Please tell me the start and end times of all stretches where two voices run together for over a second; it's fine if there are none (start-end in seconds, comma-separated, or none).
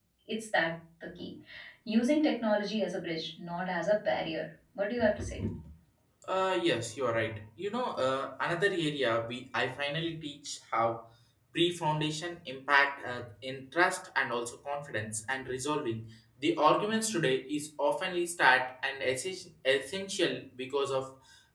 none